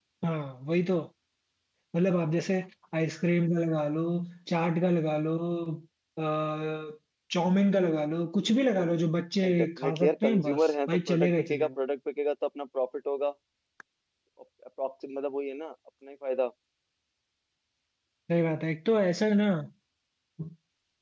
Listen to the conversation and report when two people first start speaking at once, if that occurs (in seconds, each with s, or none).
9.4 s